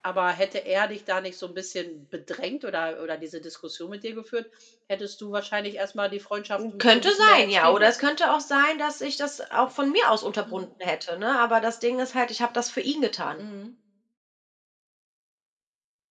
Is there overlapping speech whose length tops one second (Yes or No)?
Yes